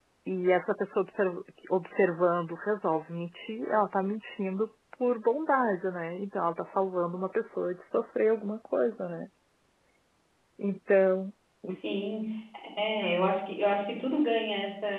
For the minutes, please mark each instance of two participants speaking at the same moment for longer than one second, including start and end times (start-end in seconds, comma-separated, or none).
none